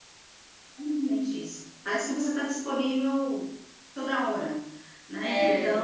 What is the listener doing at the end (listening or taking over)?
listening